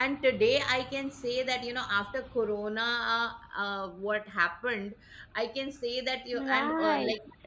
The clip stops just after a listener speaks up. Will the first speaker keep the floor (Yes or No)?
Yes